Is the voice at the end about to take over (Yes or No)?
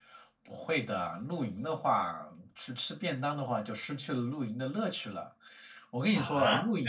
Yes